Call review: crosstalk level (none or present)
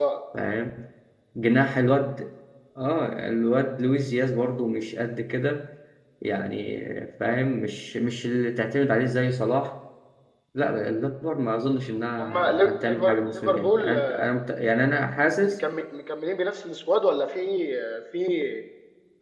present